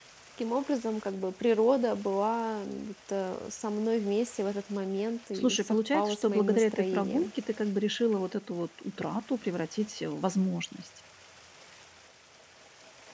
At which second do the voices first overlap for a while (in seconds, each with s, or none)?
5.3 s